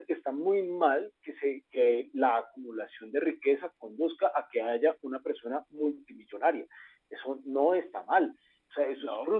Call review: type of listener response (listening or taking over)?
listening